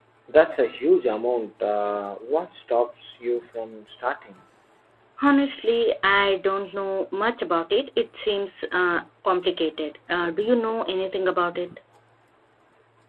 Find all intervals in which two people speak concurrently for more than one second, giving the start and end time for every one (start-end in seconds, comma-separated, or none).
none